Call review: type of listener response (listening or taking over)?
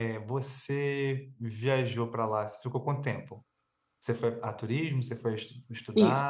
taking over